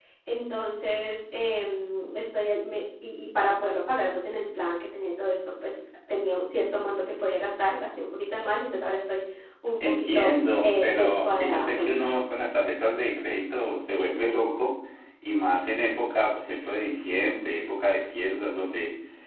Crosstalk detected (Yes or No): Yes